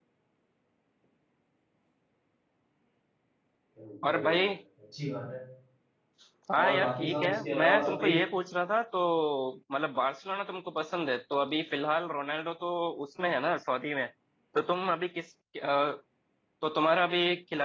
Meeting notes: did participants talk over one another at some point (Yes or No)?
Yes